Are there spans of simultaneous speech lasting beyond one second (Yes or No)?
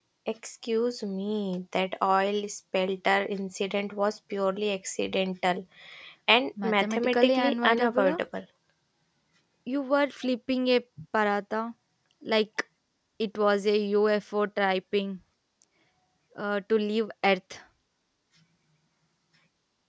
Yes